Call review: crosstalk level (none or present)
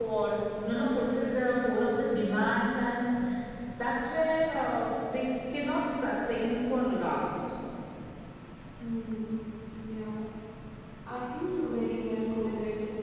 none